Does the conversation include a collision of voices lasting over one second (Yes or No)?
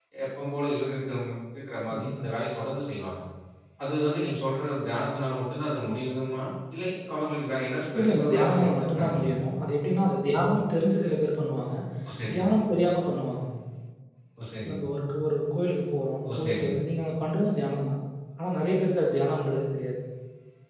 Yes